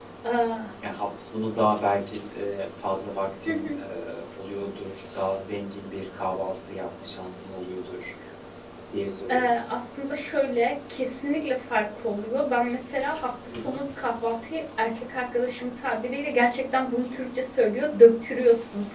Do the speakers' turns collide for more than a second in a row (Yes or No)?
No